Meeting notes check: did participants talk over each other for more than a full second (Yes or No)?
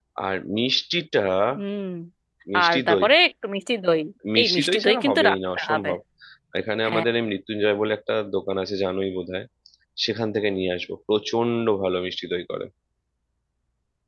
Yes